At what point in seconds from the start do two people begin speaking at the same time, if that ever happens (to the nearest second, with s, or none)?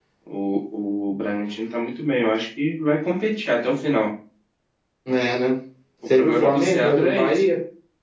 6 s